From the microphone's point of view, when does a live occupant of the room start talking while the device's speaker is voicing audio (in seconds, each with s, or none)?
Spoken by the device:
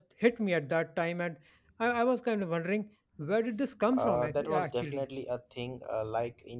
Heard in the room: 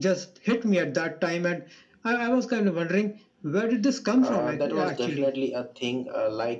none